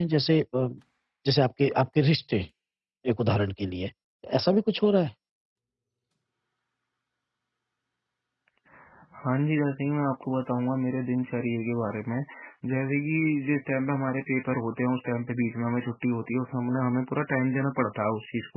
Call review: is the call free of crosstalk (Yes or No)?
Yes